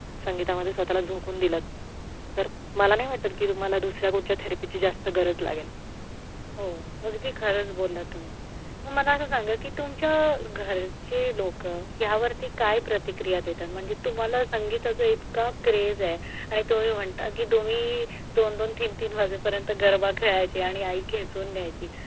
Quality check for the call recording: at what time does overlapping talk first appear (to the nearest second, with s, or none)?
none